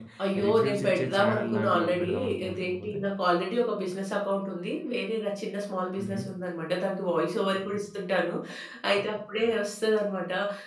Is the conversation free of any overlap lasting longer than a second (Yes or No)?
No